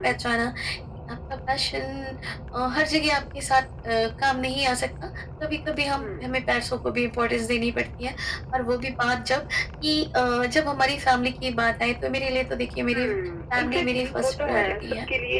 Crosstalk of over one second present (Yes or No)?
Yes